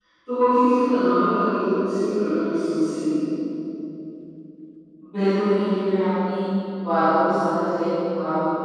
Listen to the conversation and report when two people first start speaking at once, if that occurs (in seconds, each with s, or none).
none